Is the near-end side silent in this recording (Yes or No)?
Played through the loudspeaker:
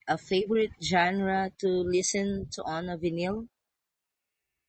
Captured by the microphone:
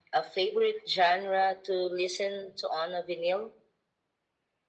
Yes